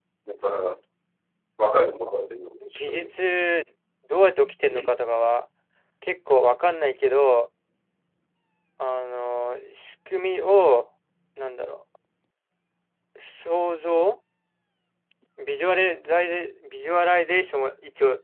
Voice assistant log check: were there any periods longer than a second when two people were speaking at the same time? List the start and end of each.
none

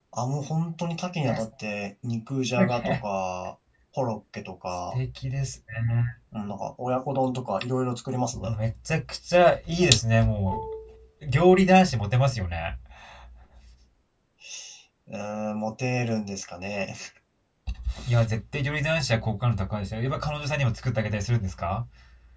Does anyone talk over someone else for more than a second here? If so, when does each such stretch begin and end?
none

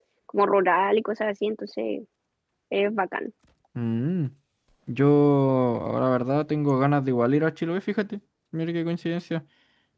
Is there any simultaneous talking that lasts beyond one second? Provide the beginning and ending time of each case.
none

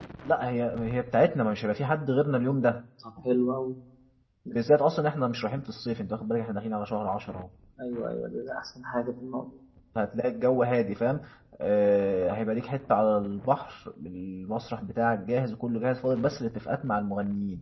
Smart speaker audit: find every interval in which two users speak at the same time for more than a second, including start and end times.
none

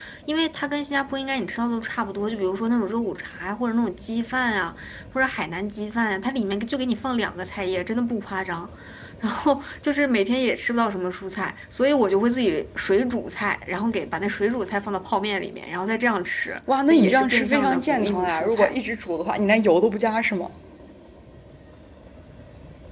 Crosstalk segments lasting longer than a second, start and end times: 16.9-18.8

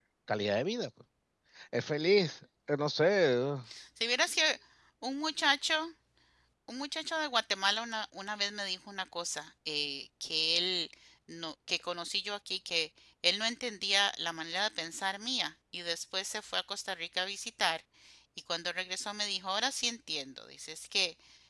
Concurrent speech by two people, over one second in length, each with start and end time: none

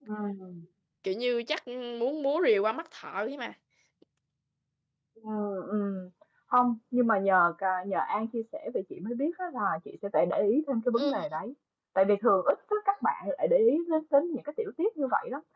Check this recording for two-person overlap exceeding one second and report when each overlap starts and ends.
none

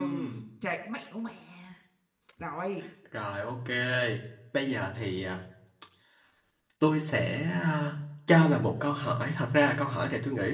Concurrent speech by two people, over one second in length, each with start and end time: none

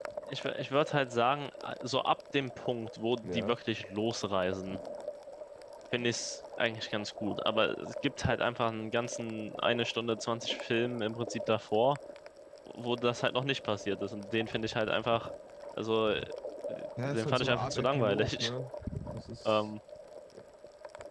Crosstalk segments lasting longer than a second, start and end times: 17.0-18.5

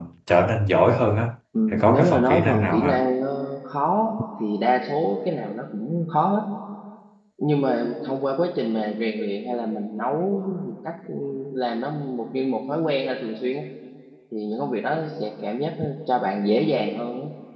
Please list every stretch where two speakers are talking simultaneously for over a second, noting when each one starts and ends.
1.7-2.9

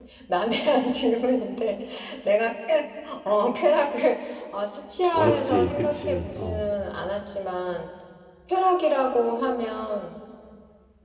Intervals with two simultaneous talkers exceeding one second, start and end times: 5.1-6.7

